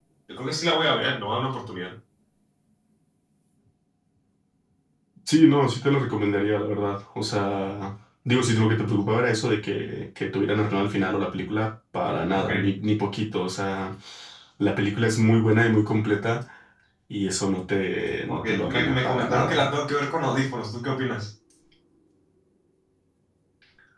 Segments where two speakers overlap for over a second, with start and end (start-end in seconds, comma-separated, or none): 18.3-19.6